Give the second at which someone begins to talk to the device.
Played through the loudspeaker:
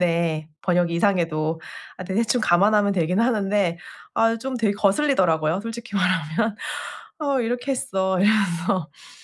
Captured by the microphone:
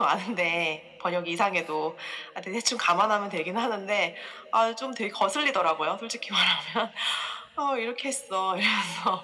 none

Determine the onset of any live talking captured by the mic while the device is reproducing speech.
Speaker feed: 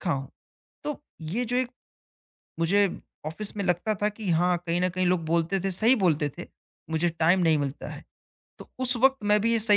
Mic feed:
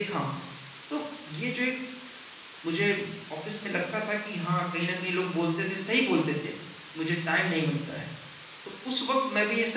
none

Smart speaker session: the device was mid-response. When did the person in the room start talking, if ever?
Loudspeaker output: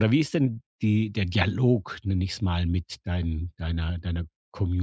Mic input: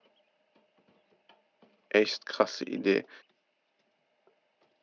2 s

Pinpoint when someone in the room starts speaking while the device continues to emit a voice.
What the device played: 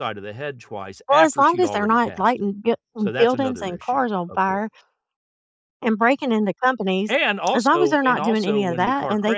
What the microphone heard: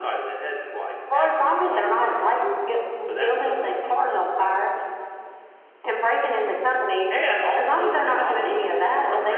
none

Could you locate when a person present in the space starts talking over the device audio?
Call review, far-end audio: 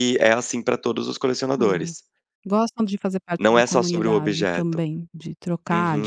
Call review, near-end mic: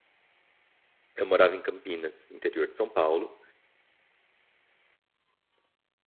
1 s

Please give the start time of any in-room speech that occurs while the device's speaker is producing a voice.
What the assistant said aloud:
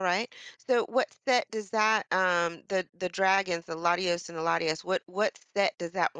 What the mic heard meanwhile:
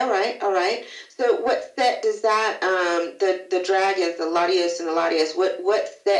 none

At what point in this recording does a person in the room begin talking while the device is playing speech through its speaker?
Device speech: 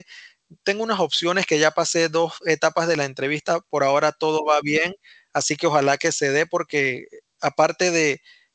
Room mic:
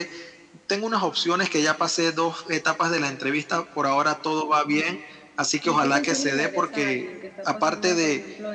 6 s

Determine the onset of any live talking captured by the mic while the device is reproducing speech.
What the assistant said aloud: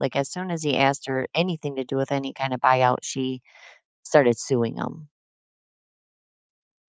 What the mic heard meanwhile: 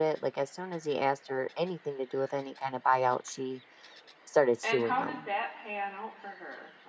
5 s

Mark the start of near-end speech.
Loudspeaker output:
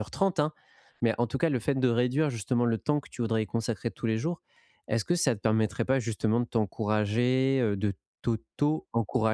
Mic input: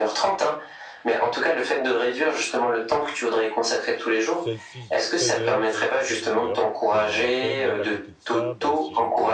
4 s

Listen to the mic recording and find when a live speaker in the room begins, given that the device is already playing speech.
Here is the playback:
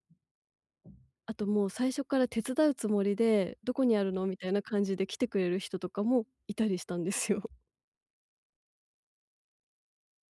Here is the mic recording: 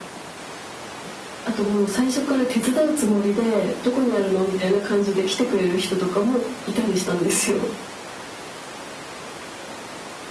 none

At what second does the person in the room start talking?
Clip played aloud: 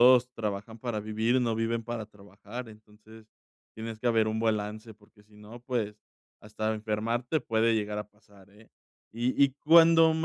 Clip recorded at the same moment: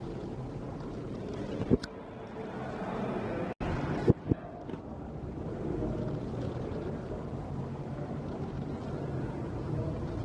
none

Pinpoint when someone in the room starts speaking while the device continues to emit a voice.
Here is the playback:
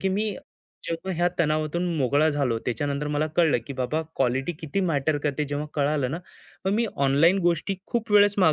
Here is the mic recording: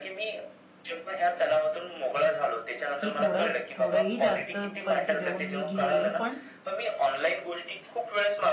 3 s

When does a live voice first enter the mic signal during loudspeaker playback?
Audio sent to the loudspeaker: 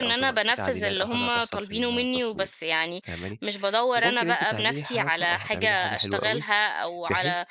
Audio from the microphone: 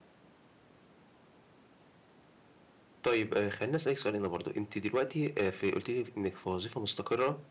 3 s

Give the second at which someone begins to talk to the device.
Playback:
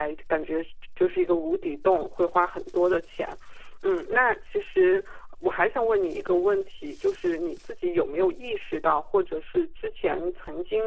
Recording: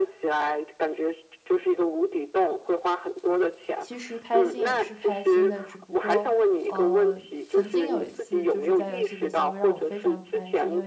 4 s

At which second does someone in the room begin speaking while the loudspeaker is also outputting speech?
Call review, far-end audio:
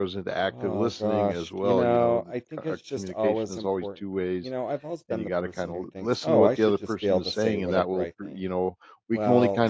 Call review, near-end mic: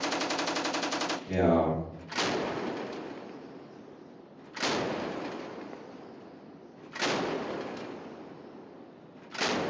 1 s

